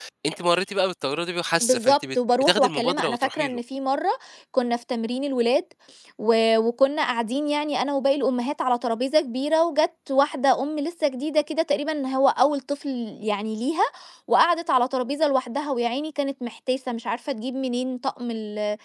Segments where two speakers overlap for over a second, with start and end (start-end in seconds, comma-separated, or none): 1.6-3.6